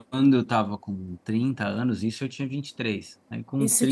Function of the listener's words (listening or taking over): taking over